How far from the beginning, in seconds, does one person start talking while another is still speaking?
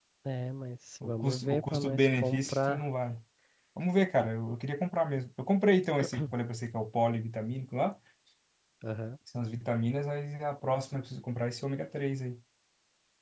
1 s

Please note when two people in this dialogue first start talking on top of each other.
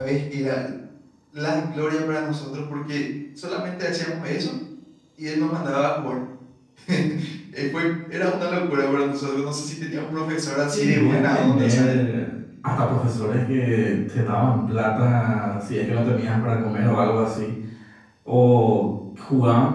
11 s

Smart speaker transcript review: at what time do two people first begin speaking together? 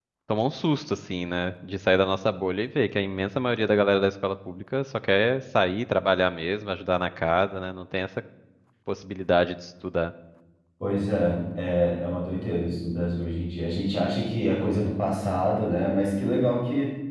none

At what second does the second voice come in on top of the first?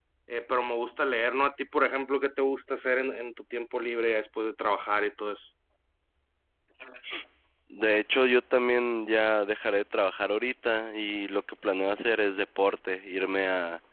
none

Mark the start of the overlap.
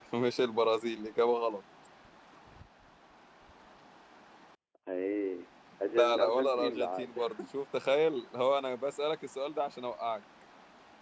6 s

